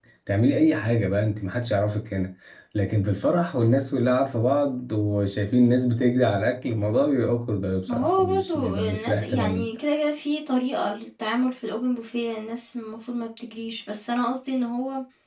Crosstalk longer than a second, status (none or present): present